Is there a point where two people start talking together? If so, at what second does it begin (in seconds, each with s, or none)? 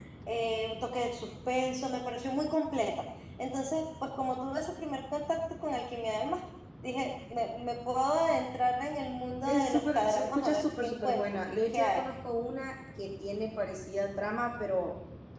9.4 s